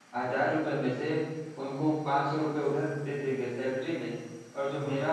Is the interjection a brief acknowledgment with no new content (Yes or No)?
Yes